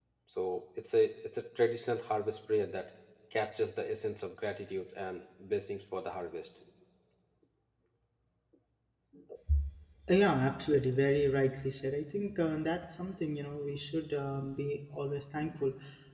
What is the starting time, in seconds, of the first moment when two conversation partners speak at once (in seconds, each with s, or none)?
none